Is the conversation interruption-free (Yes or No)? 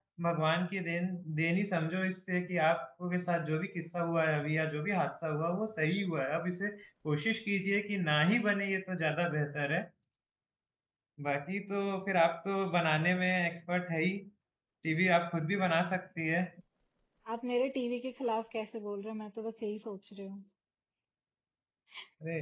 Yes